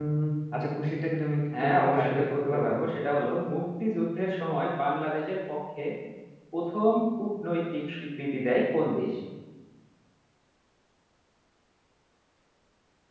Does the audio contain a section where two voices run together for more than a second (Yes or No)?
Yes